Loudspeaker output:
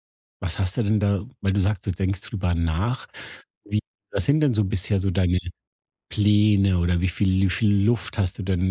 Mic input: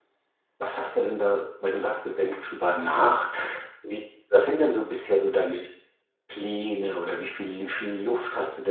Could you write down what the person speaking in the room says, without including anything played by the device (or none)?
none